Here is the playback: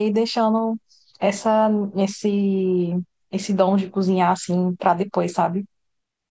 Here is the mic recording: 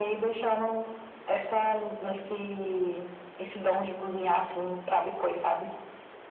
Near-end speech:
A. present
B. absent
B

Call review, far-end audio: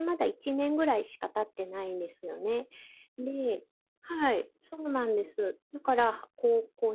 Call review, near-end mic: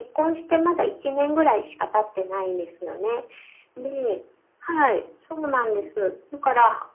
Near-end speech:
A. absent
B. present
A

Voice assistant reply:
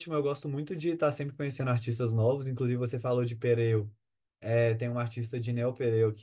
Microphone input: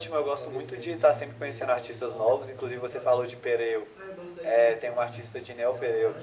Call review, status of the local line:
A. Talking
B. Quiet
A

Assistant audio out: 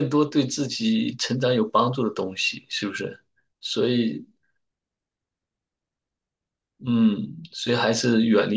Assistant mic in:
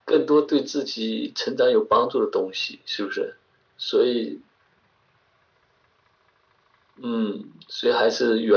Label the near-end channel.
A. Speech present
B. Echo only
B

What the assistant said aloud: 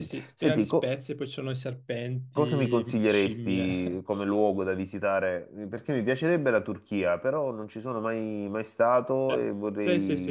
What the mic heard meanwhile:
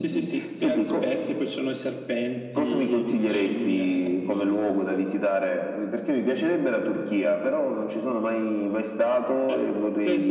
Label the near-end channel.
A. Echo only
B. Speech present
A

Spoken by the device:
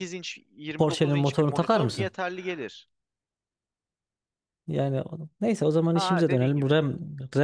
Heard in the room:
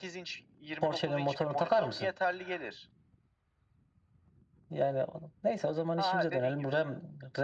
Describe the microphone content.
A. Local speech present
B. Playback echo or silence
B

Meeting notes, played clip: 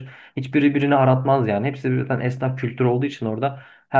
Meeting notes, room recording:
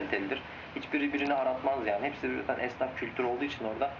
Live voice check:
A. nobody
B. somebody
A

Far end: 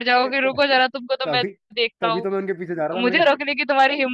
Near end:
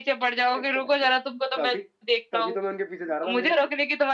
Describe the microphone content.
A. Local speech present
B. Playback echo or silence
B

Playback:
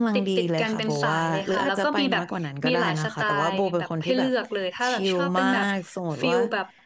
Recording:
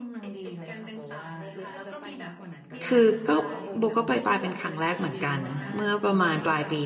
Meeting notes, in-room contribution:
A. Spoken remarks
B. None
A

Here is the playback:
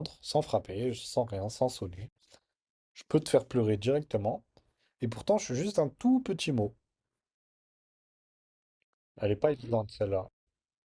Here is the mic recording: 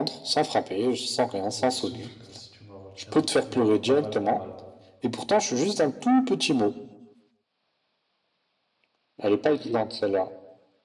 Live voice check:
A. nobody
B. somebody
B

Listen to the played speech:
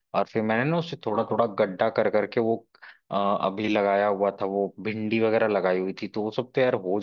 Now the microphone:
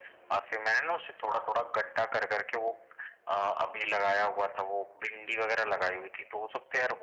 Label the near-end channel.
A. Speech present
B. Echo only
B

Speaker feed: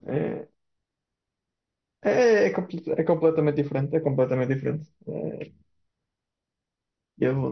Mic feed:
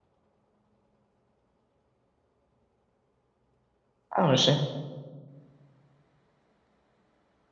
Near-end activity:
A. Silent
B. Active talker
B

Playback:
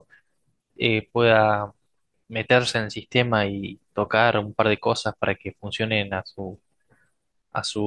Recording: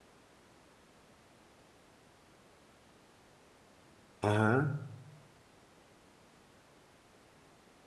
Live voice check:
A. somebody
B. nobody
A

